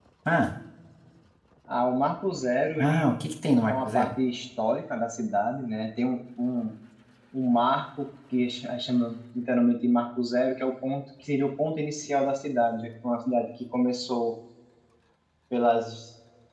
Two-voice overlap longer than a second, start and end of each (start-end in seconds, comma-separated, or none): none